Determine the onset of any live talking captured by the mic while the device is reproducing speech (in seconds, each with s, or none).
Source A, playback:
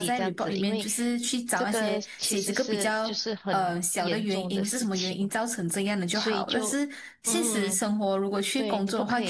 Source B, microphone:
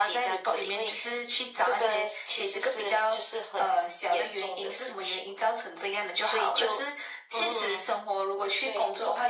none